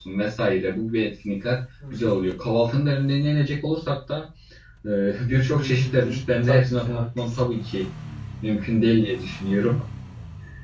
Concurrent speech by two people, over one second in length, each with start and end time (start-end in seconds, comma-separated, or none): 5.5-7.5